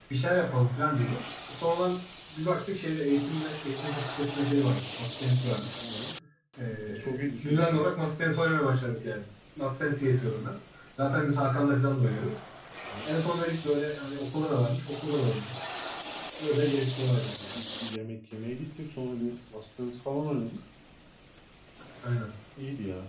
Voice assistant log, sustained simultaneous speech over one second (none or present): none